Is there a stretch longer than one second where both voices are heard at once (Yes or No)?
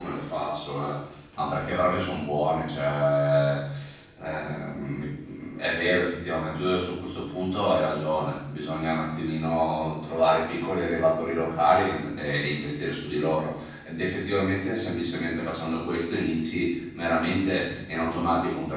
No